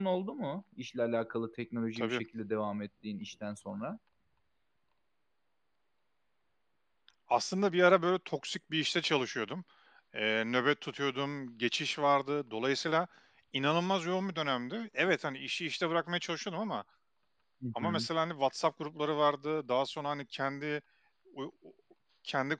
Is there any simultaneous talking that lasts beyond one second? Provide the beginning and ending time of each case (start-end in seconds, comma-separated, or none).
none